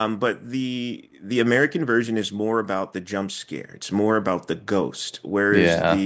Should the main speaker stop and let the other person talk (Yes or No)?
No